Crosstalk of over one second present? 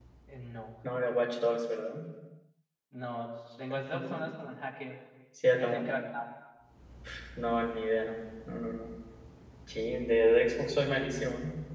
No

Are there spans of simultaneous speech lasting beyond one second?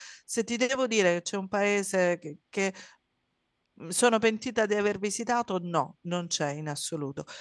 No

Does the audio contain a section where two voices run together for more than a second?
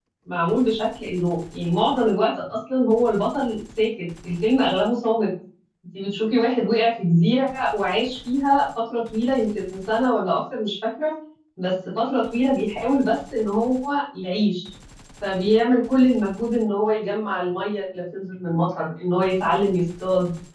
No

